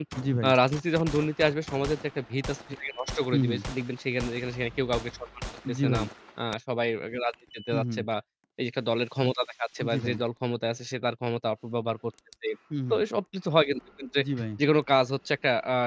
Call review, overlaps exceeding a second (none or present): none